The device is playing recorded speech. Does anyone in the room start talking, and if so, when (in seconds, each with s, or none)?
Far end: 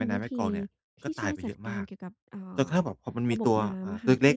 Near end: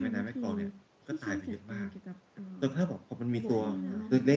3.4 s